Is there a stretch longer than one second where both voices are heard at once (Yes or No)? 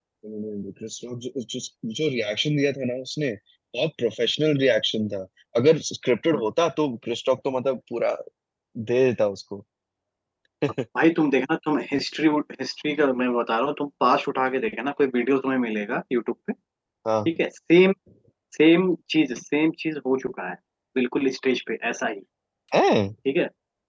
No